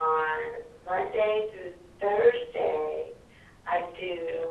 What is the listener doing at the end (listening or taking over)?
listening